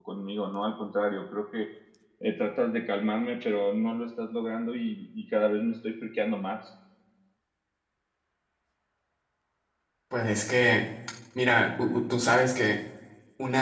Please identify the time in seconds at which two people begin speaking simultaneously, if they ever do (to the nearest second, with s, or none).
none